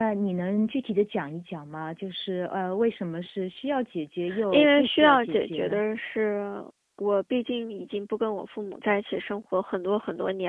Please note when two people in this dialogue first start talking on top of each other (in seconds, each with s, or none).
4.3 s